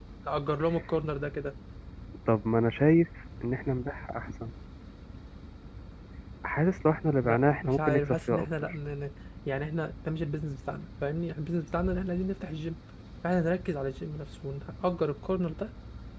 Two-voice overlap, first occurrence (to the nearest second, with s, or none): 7 s